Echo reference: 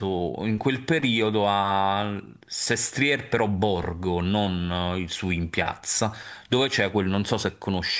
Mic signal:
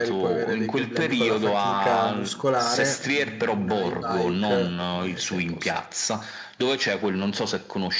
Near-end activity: present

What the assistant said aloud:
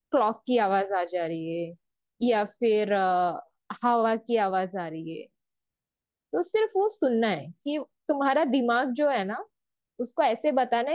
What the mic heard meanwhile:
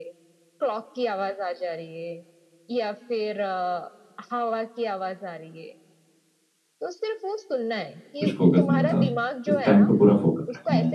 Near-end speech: present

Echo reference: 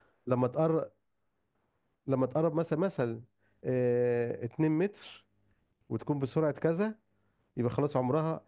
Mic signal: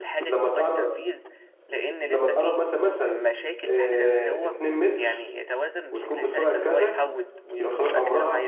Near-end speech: present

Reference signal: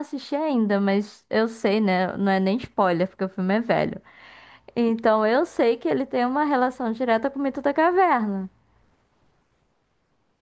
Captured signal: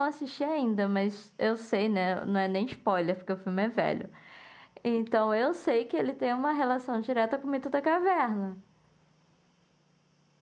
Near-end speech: none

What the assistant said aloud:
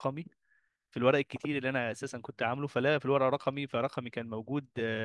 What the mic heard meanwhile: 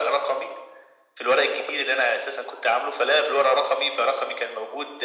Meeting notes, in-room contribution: none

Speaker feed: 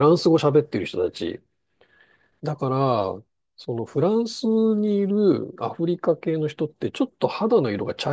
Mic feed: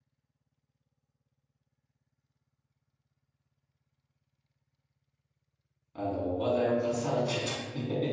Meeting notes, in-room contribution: present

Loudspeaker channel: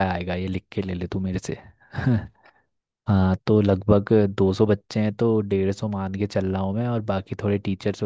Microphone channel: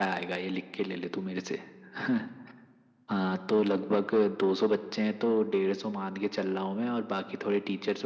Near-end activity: none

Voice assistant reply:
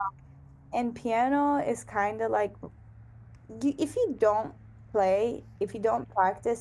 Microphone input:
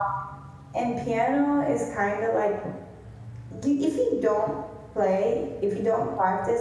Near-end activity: none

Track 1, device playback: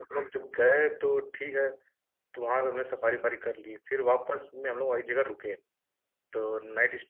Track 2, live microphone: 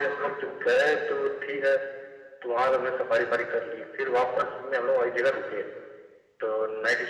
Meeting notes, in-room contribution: none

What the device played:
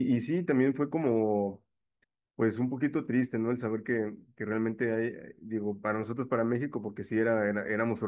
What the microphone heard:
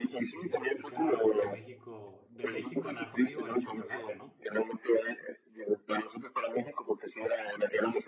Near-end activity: present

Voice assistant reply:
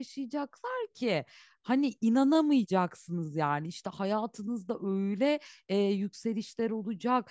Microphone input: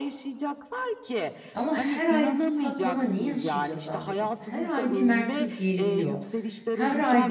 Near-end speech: present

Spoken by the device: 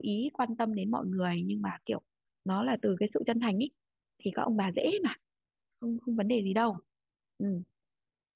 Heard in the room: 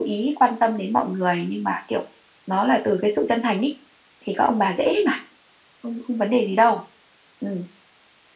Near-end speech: none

